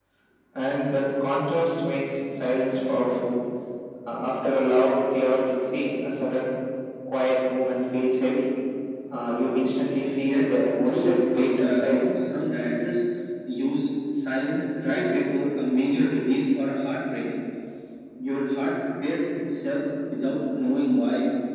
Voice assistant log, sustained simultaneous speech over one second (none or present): present